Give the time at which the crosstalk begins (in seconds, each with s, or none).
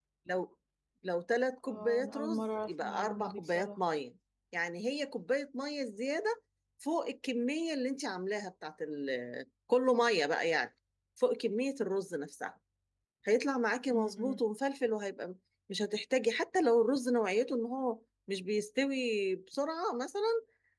1.7 s